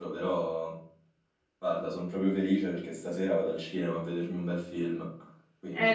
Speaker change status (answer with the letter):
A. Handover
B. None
A